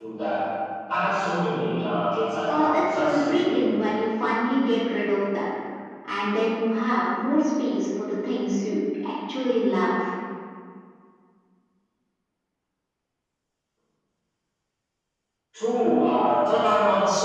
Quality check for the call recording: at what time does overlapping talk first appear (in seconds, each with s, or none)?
2.5 s